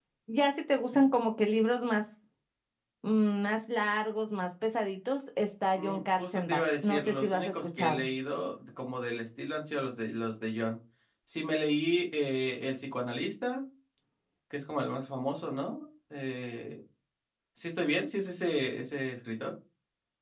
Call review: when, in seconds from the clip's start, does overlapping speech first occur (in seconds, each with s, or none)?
5.8 s